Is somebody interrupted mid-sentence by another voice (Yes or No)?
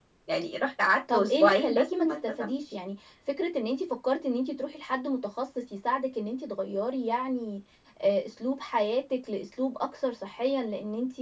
Yes